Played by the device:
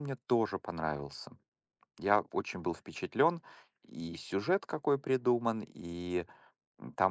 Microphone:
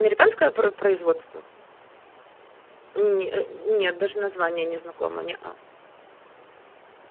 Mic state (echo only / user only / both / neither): user only